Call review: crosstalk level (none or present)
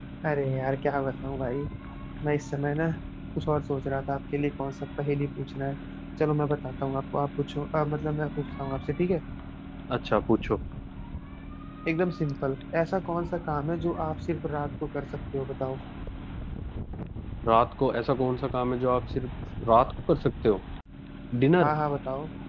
none